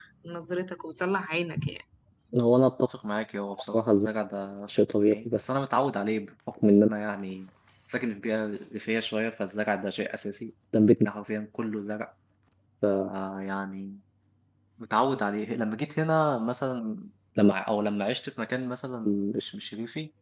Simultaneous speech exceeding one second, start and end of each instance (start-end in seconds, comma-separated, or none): none